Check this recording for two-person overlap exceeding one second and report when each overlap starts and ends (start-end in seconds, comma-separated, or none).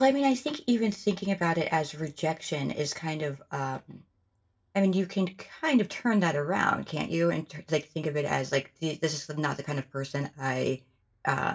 none